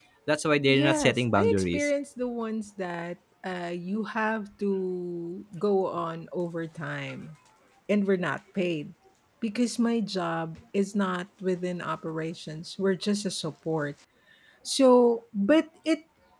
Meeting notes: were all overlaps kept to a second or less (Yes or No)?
No